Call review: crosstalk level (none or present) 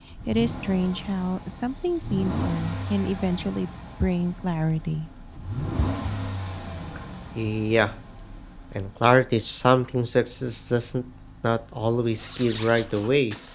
none